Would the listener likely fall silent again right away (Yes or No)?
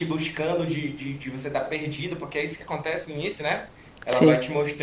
Yes